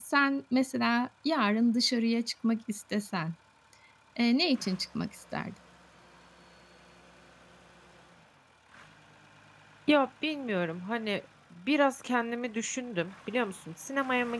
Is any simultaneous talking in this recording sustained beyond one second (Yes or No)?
No